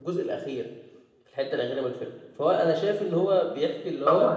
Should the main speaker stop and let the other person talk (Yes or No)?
No